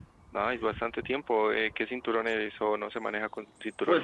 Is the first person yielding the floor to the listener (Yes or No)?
Yes